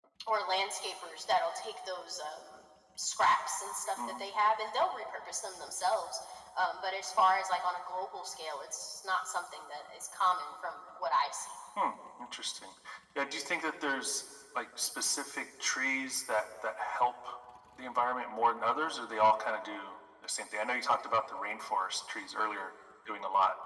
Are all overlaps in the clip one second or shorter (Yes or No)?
Yes